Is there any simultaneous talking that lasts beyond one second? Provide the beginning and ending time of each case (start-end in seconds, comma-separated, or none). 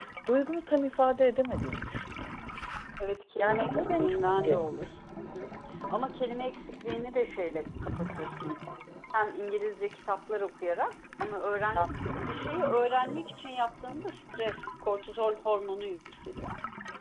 3.4-4.6